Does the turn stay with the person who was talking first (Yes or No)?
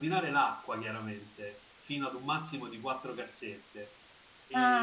No